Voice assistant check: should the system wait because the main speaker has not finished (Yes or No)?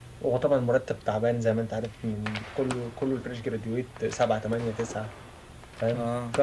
Yes